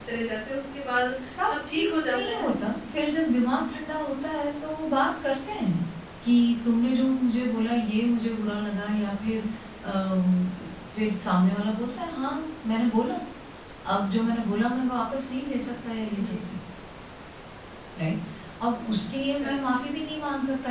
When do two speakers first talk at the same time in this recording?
1.3 s

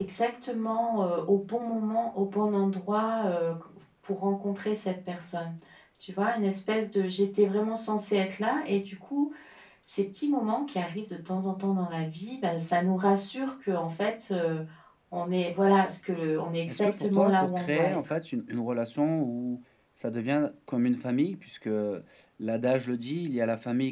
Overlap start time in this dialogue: 16.7 s

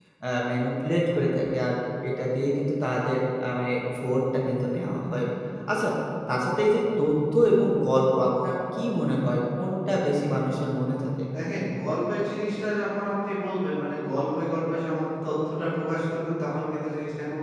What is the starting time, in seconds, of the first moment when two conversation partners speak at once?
none

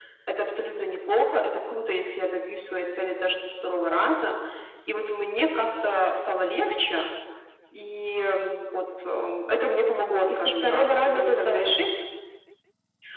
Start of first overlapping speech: 10.2 s

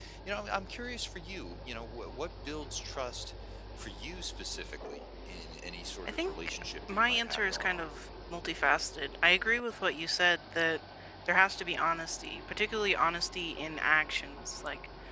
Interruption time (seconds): 6.0 s

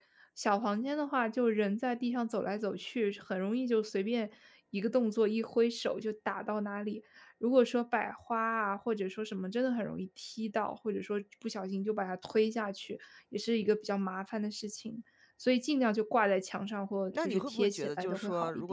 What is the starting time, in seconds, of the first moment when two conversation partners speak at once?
17.1 s

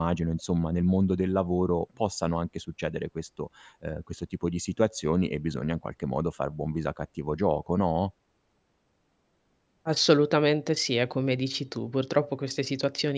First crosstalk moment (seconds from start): none

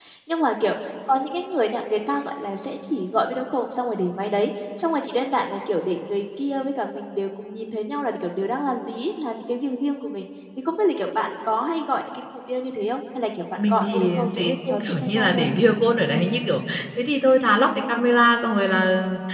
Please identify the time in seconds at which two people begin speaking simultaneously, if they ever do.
13.6 s

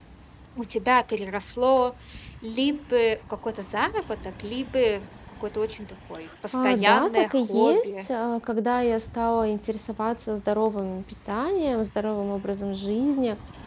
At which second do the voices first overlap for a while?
6.5 s

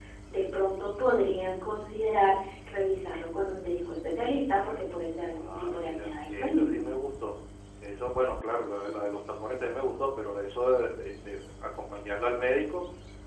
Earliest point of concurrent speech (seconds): 5.4 s

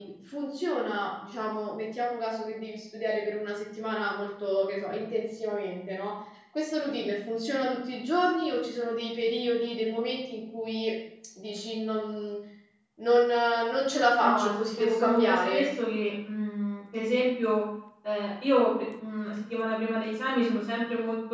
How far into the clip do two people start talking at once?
14.2 s

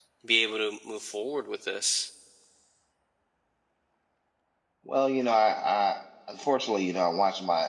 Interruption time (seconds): none

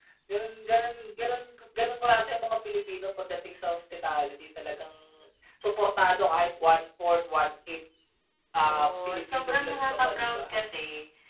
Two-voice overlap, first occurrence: 8.6 s

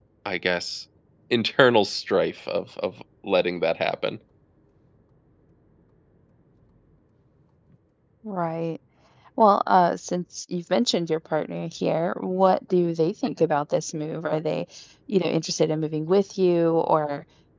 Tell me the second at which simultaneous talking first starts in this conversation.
none

